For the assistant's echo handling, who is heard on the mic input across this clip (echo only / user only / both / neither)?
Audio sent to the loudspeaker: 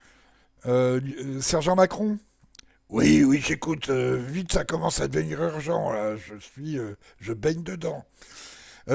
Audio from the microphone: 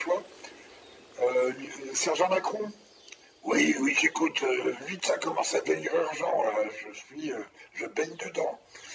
echo only